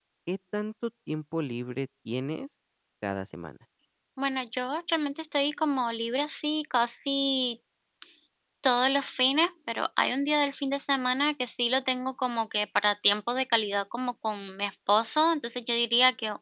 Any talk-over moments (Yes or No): No